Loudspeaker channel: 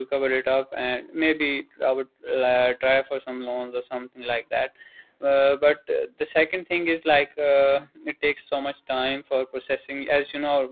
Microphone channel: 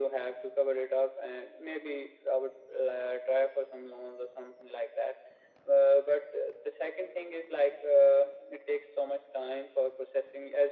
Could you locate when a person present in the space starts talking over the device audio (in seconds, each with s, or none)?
none